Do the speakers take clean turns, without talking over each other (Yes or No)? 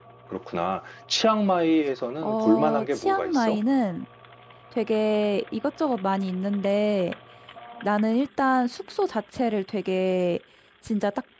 No